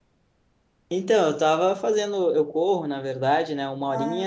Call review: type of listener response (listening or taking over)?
listening